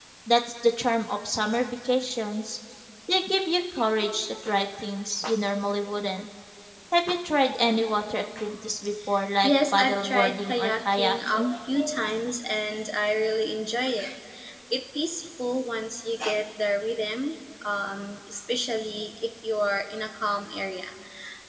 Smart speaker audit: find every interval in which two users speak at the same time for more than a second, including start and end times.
9.4-11.6

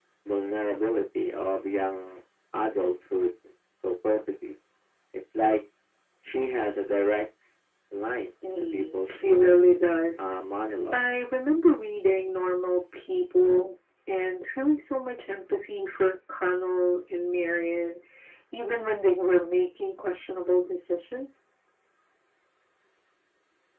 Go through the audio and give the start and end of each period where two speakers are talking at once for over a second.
8.4-9.6

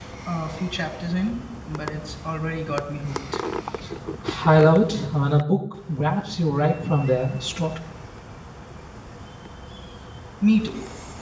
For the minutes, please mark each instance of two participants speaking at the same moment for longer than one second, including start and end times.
none

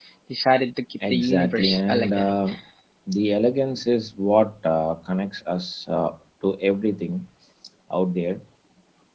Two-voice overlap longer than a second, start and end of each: 1.1-2.3

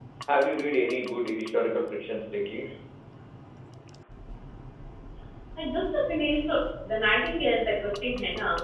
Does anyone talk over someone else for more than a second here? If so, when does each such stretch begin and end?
none

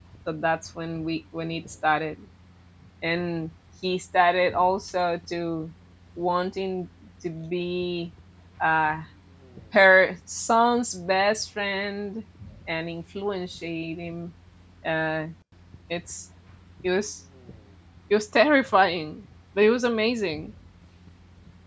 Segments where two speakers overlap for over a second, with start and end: none

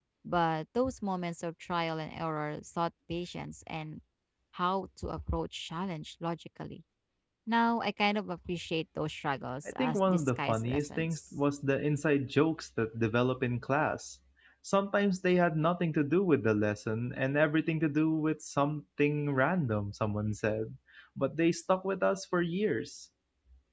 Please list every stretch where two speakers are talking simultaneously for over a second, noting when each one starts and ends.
9.8-11.2

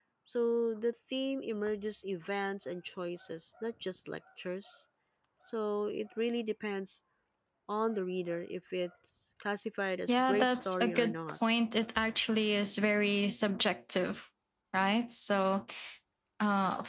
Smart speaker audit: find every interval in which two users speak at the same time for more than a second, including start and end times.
10.1-11.4

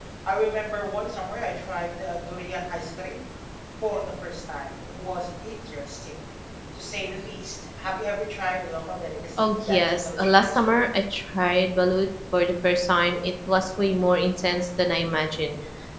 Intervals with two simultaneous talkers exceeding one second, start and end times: 9.4-10.8

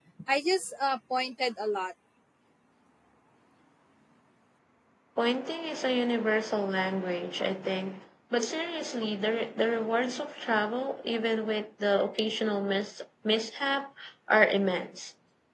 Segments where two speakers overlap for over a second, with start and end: none

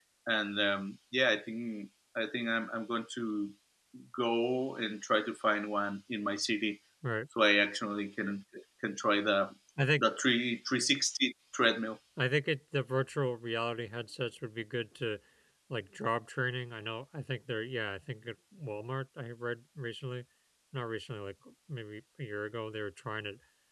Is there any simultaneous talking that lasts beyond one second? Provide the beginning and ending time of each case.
none

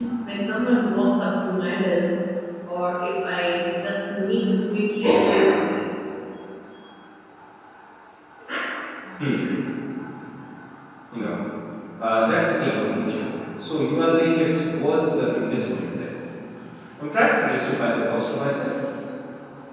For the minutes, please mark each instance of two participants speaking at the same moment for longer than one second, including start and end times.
none

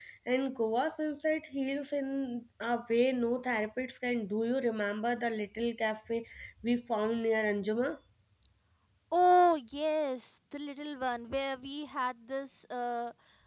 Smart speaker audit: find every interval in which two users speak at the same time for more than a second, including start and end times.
none

